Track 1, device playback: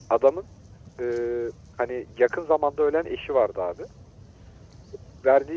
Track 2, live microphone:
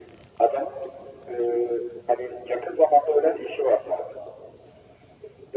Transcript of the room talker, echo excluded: none

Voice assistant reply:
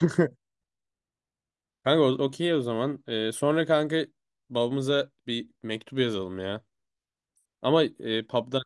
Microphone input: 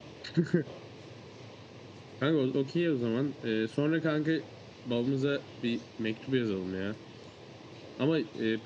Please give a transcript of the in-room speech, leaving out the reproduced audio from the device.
none

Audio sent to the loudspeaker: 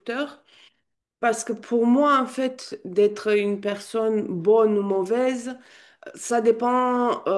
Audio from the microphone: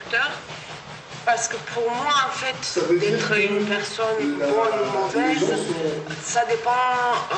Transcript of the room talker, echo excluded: ça veut dire que la, les gens sont

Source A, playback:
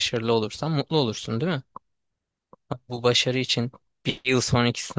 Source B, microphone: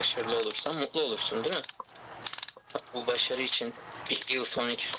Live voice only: none

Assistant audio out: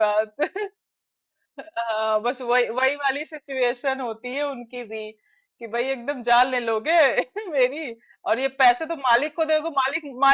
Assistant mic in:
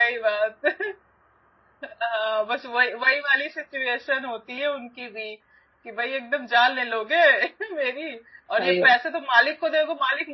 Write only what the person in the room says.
सही है

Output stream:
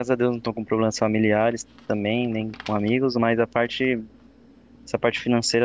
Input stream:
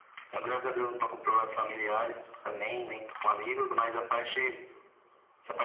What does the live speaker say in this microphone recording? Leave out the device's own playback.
none

